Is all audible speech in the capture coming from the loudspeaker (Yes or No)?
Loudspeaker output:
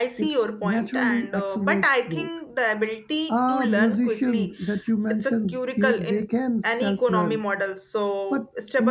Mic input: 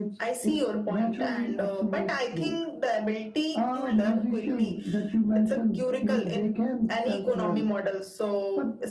Yes